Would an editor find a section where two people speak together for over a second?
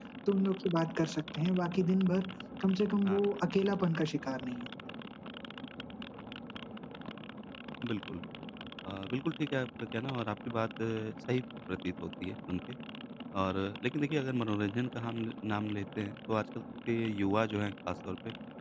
No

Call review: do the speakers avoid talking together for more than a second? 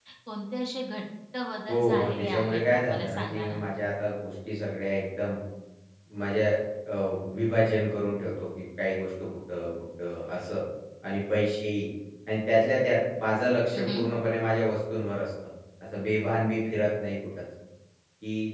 No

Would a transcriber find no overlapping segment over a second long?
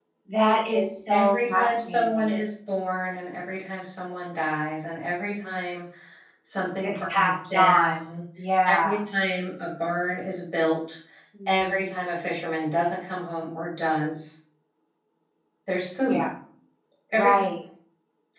No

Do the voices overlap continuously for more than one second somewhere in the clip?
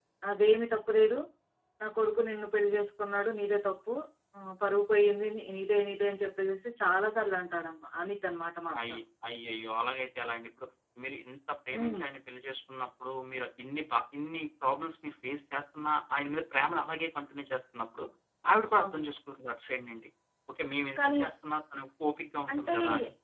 No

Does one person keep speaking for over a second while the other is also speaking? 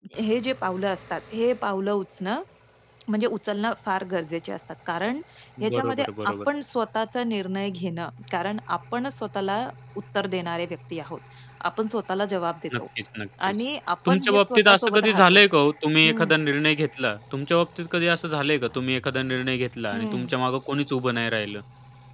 Yes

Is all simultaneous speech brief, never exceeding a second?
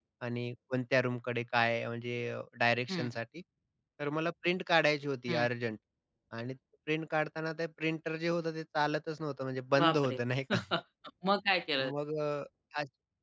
Yes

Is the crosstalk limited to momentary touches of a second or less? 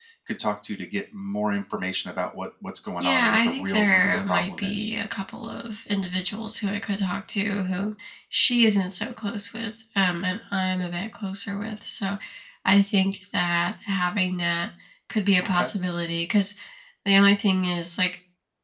No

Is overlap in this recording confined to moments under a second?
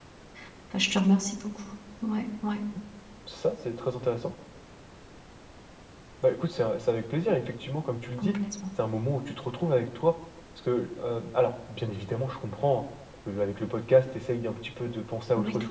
Yes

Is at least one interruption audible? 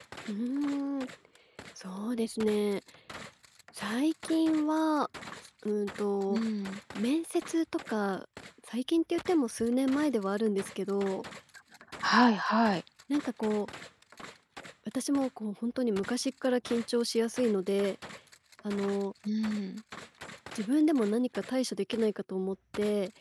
No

